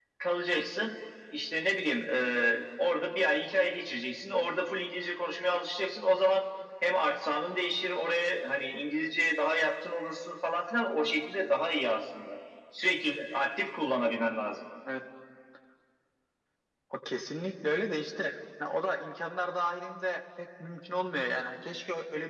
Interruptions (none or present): none